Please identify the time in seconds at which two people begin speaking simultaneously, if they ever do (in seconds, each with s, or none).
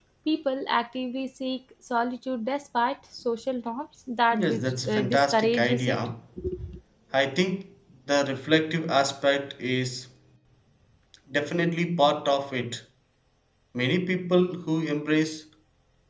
4.3 s